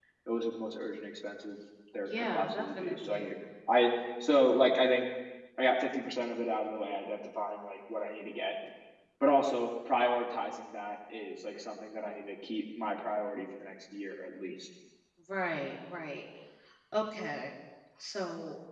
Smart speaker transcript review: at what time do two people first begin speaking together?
2.1 s

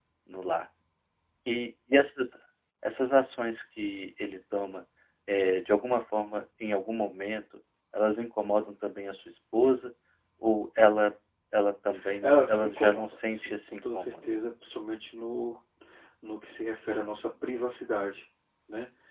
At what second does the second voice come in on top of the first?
12.2 s

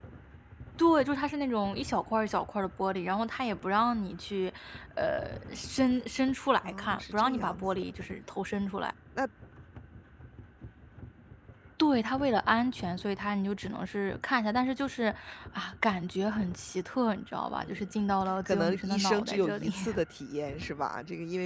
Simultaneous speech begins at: 6.6 s

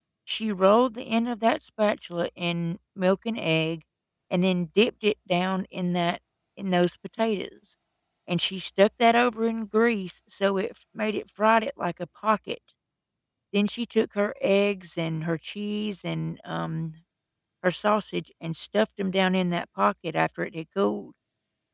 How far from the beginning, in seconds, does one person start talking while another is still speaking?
none

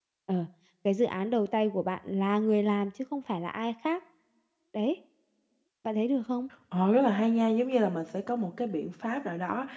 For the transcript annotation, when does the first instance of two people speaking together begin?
none

